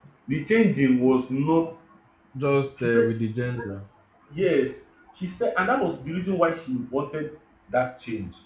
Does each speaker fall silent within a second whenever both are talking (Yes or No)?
Yes